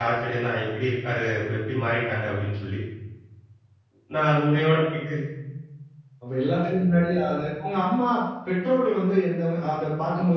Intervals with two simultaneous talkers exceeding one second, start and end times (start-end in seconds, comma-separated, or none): none